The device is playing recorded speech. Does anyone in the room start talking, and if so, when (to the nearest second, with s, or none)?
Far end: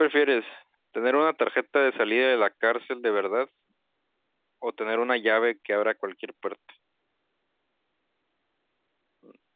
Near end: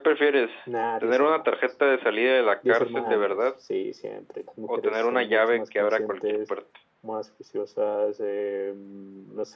1 s